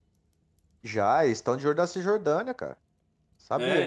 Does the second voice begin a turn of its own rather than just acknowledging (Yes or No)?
Yes